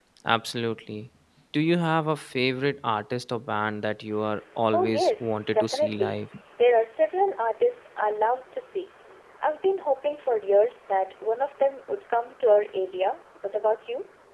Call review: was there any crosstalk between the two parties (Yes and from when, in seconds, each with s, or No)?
Yes, from 4.7 s